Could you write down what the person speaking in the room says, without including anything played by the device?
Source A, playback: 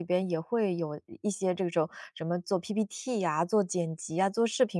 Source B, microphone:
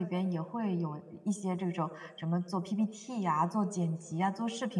none

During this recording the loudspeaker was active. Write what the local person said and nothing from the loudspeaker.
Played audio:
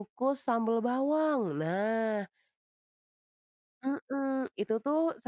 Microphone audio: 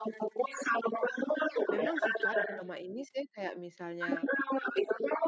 Memang sih Kak, selama ini saya kayak misalnya

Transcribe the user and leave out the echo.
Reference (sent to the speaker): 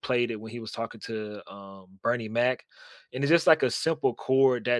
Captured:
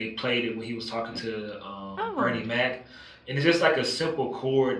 Oh.

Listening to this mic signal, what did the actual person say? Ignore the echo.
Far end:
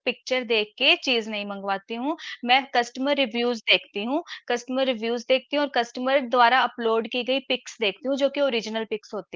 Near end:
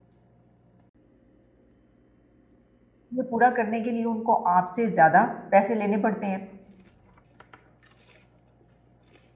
ये पूरा करने के लिए उनको आपसे ज़्यादा पैसे लेने पड़ते हैं।

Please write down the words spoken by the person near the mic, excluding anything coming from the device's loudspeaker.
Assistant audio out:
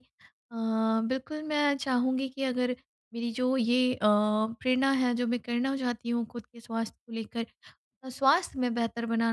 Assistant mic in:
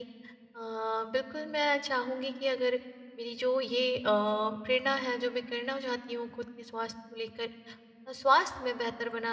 none

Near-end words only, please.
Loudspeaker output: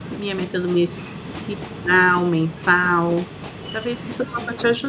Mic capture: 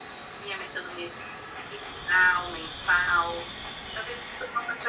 none

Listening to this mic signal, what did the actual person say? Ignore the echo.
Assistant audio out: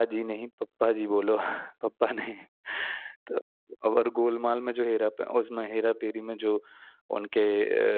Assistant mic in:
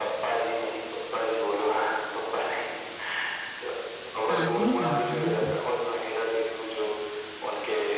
हाँ, सही कहा आपने बिल्कुल,

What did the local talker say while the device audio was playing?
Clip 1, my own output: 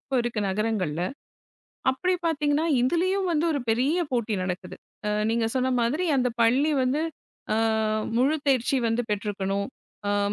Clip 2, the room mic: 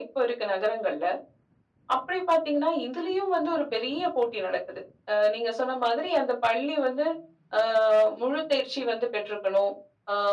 none

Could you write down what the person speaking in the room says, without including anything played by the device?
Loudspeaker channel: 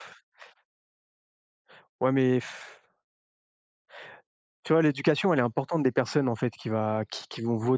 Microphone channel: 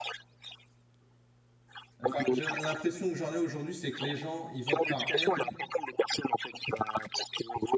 Enfin, j'ai l'impression que j'en ai aujourd'hui, c'est que les gens, ils votent par haine

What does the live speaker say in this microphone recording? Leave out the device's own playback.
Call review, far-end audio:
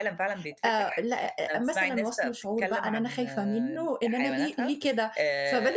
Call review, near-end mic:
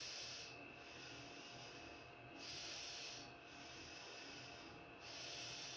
none

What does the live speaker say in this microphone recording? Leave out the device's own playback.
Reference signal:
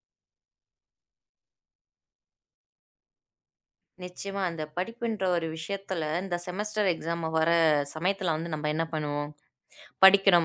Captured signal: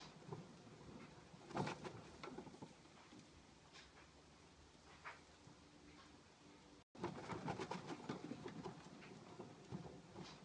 none

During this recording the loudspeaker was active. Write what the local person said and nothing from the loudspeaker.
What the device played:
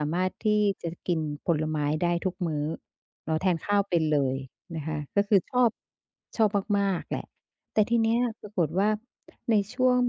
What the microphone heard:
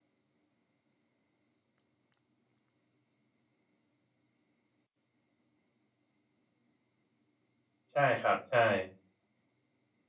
ใช่ครับใช่

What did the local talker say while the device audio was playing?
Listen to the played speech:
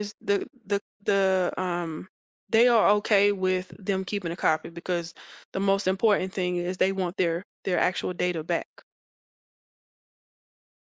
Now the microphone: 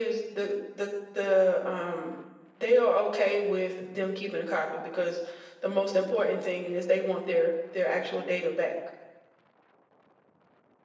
none

